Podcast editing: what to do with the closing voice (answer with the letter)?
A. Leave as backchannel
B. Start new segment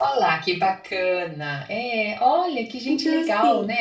B